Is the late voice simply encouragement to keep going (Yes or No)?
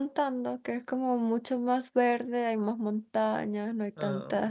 Yes